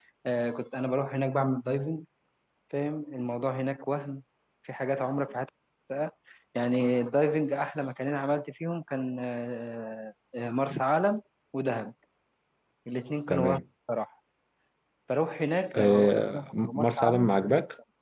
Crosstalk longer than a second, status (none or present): present